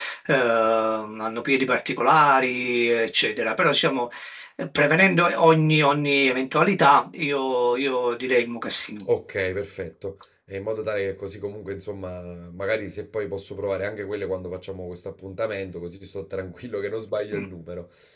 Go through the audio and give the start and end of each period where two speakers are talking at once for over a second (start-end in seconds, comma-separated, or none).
none